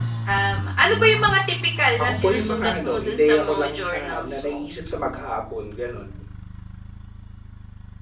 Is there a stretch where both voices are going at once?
Yes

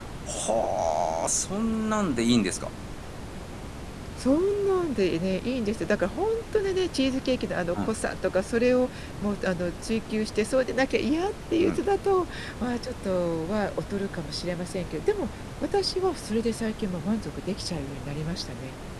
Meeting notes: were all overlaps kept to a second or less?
Yes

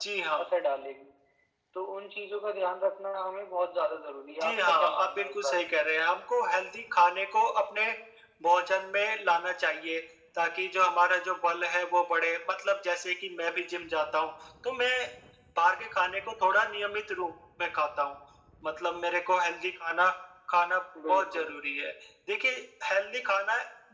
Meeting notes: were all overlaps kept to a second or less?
No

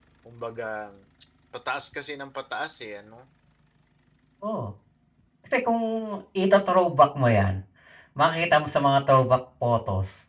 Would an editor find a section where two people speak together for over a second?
No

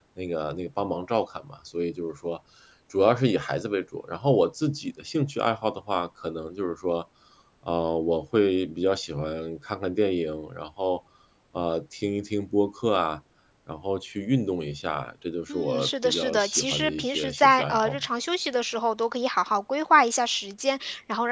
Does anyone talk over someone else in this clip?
Yes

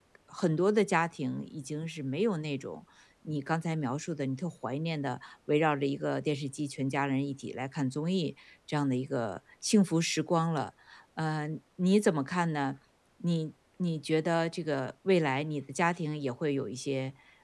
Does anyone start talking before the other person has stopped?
No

